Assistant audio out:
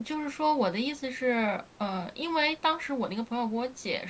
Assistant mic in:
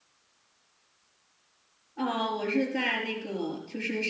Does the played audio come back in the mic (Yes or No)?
No